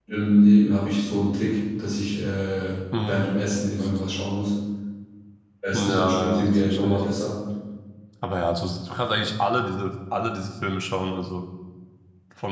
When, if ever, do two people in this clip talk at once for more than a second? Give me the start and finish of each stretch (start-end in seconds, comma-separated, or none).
5.7-7.0